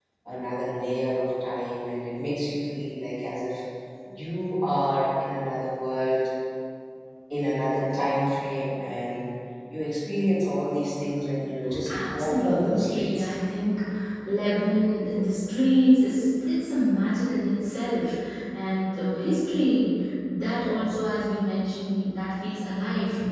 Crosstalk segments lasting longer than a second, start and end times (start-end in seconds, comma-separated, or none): 11.9-13.3